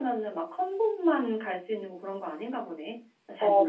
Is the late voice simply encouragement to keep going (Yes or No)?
No